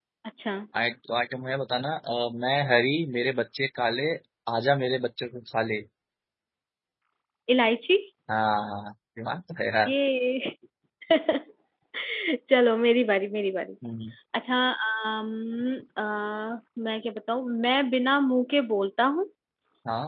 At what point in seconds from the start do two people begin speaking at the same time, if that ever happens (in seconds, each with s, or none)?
none